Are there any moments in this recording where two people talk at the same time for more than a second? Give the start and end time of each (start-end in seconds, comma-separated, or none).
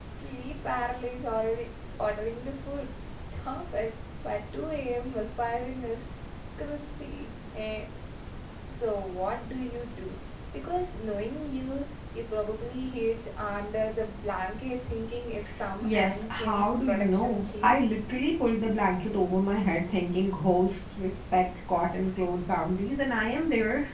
15.8-17.8